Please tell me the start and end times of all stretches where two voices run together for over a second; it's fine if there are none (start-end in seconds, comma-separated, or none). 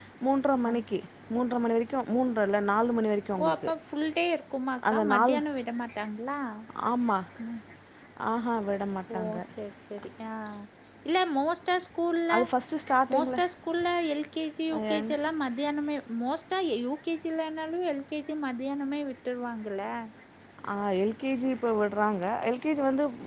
none